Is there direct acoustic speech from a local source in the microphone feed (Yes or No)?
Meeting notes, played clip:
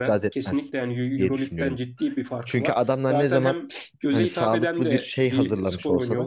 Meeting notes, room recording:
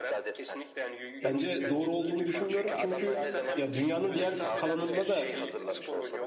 Yes